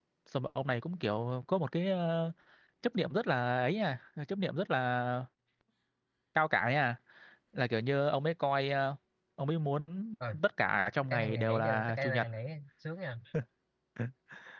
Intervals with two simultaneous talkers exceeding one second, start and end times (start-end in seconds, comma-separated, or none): 11.0-12.2